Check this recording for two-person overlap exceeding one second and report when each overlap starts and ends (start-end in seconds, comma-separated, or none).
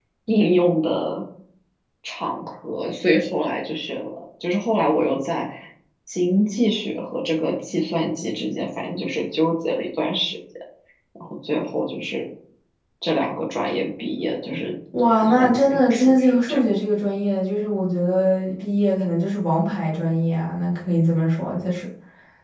15.2-16.6